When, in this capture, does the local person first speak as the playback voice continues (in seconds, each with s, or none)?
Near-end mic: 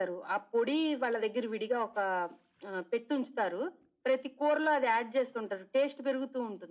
none